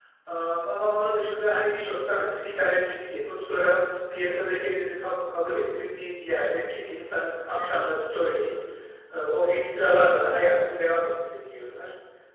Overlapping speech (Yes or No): No